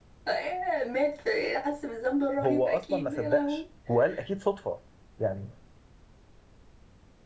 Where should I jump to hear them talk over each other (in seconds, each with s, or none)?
2.4 s